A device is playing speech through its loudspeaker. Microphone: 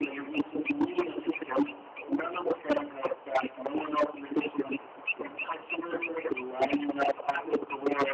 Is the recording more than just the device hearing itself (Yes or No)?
No